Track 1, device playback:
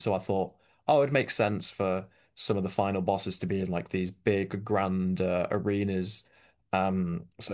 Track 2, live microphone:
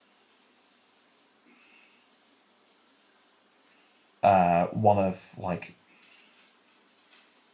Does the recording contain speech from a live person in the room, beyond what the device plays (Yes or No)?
Yes